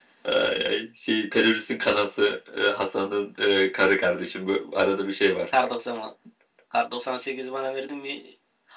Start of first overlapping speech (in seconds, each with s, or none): none